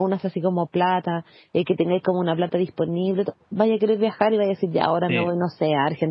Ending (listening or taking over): listening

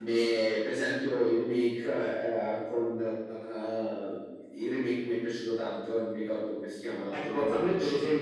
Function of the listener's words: taking over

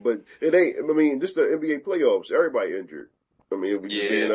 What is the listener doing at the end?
taking over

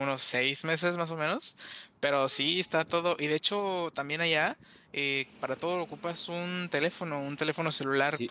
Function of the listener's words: taking over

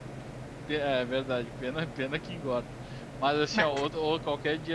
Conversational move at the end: listening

